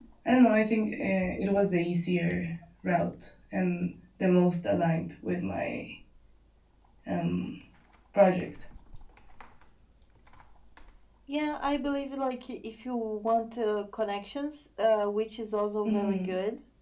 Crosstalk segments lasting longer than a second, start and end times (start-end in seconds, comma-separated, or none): none